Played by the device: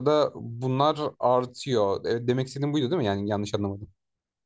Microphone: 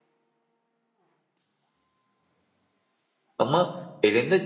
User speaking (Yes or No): Yes